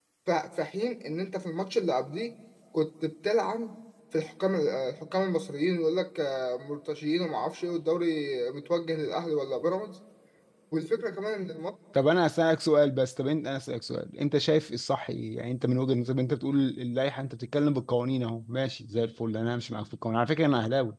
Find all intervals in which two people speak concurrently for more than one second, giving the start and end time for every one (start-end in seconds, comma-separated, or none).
none